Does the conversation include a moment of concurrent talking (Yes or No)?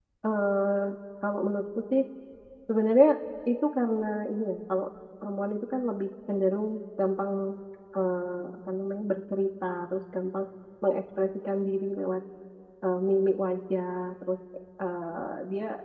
No